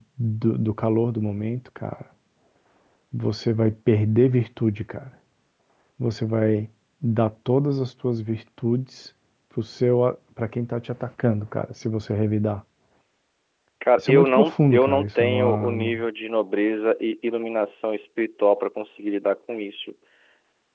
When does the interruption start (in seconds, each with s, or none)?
14.0 s